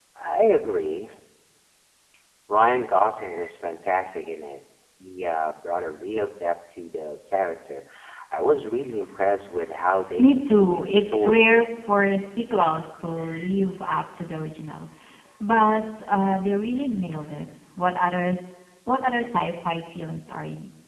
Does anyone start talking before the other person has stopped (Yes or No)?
Yes